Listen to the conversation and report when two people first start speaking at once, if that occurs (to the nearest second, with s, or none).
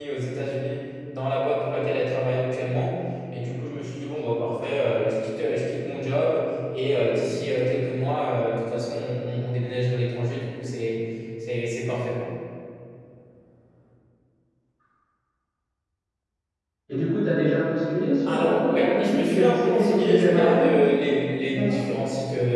18 s